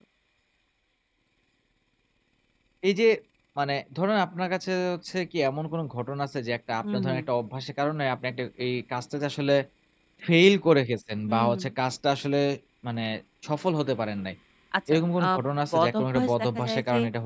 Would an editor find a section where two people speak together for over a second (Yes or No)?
Yes